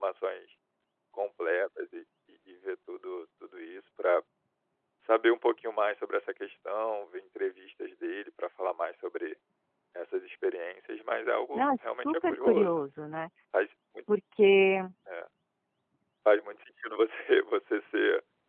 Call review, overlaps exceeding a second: present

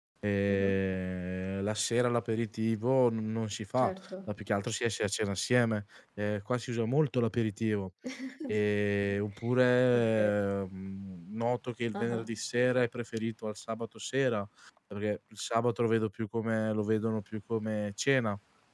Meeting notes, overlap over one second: none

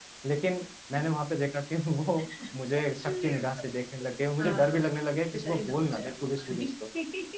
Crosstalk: present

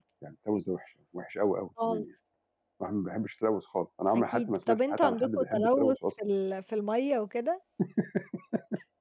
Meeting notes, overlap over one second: present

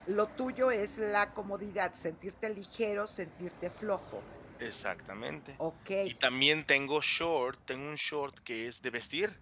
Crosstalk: none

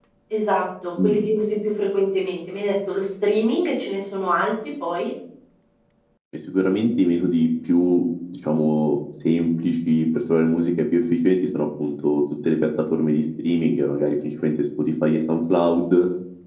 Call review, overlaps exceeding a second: none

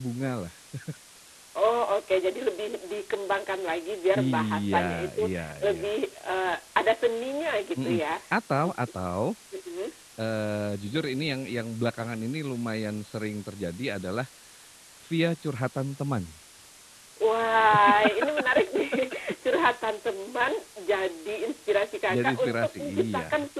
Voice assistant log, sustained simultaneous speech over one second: present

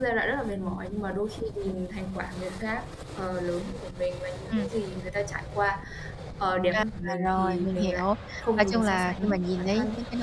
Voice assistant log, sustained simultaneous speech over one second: present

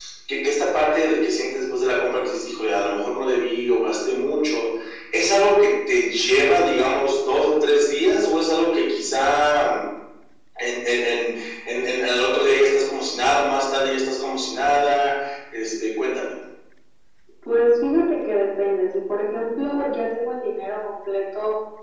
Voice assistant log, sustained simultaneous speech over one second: none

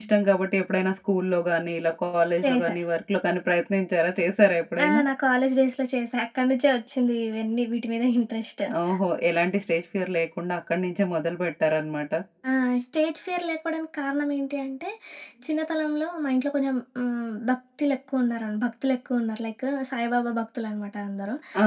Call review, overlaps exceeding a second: none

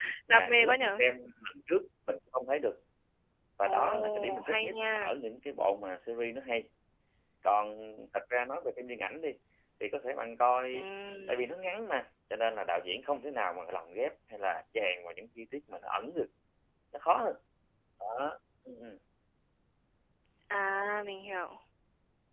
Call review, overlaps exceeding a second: present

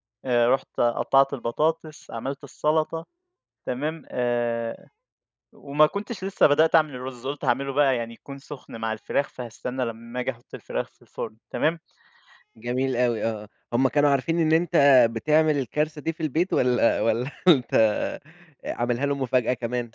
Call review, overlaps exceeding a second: none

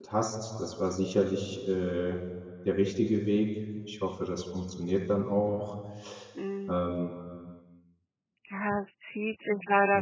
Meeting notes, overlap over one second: none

